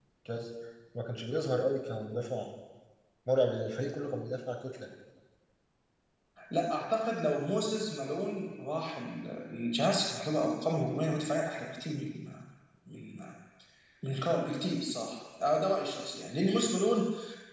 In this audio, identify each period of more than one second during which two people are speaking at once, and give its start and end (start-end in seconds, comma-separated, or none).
none